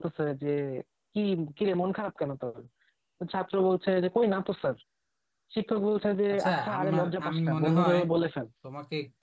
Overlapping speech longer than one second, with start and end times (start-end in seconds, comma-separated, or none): 6.3-8.0